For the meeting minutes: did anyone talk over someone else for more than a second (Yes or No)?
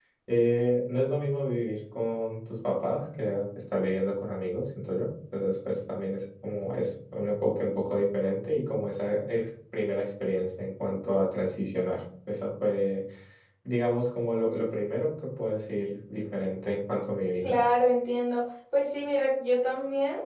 No